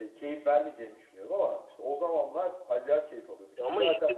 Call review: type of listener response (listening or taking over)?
taking over